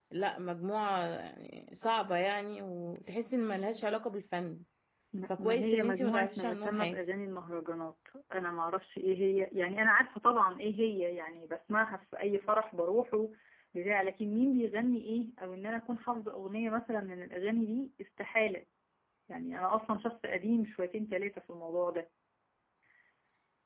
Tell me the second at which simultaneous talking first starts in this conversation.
5 s

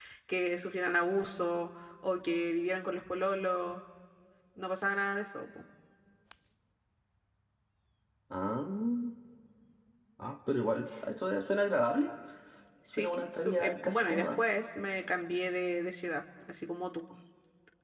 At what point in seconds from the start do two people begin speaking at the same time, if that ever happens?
13 s

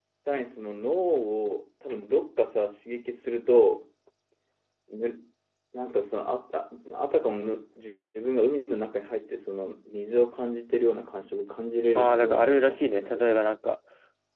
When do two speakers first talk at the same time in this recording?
12 s

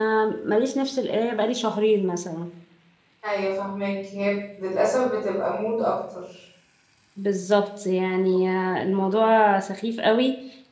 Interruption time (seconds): none

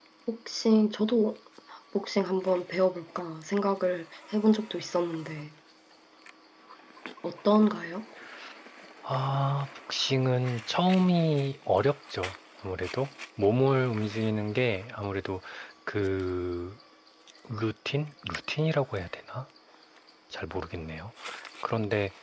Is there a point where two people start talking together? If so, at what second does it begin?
none

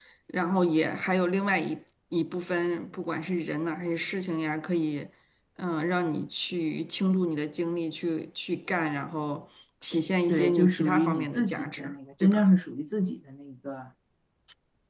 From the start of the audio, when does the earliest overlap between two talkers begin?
10 s

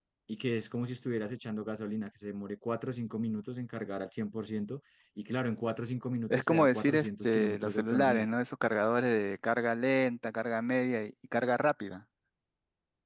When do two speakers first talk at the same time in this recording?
6 s

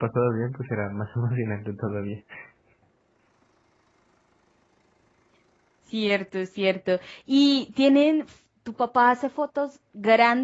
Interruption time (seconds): none

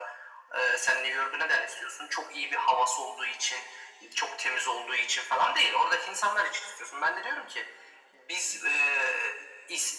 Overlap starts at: none

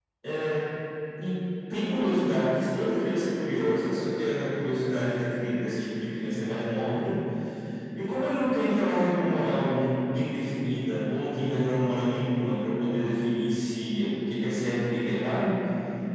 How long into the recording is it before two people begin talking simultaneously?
none

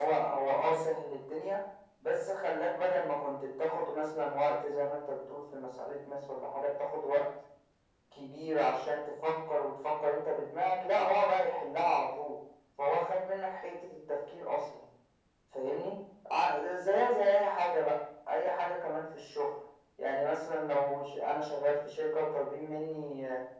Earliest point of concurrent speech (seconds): none

